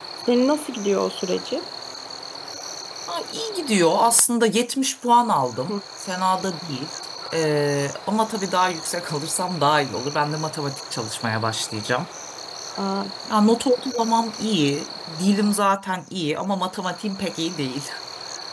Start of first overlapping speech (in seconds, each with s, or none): none